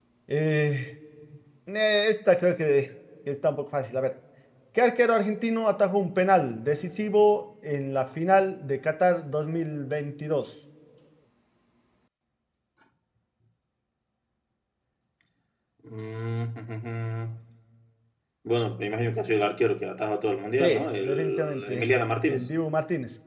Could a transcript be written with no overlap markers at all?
No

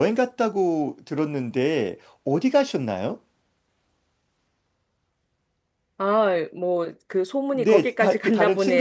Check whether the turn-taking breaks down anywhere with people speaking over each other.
Yes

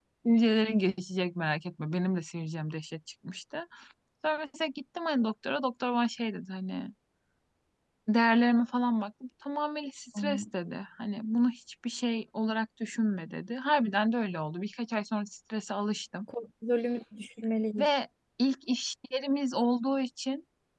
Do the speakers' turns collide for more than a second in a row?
No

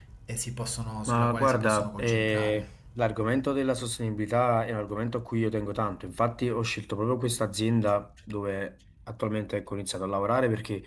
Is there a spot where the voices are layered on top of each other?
Yes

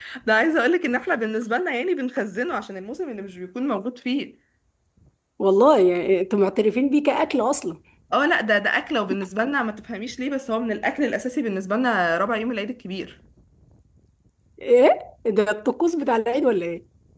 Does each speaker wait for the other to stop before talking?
Yes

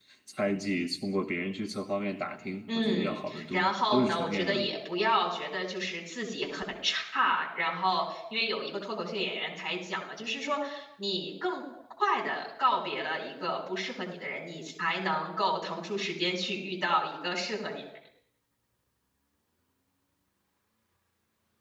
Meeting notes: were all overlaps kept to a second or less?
No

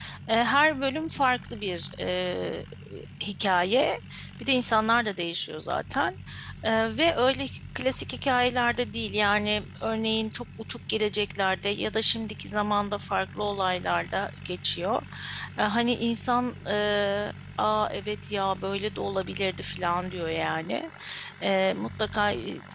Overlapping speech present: No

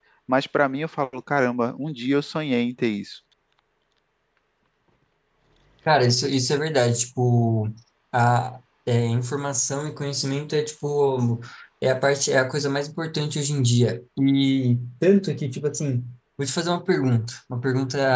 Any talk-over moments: No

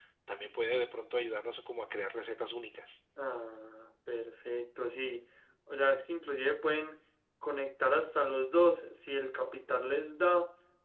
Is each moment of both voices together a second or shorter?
Yes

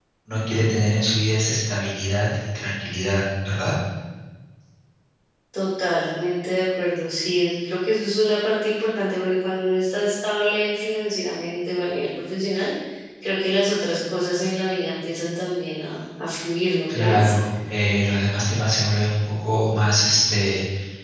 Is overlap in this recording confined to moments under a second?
Yes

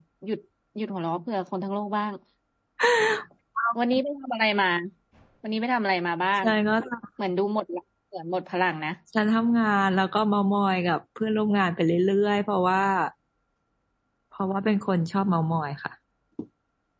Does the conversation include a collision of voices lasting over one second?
No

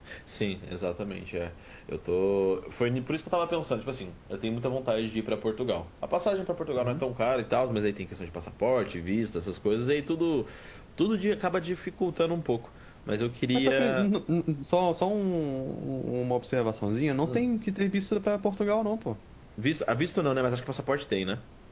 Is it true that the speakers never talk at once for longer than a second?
Yes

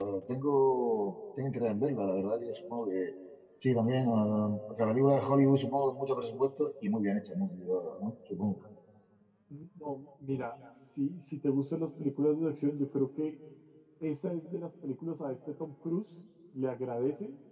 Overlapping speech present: No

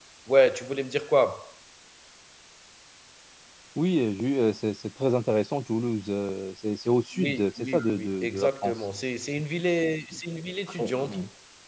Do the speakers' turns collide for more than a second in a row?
Yes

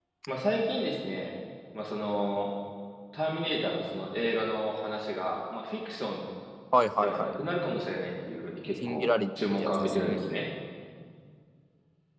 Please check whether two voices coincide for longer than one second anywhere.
Yes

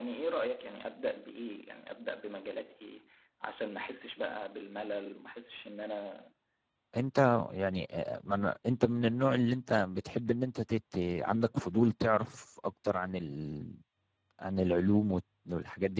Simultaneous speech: No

